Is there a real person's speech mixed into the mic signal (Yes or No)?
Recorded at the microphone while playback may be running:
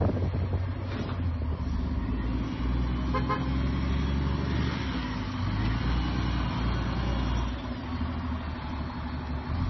No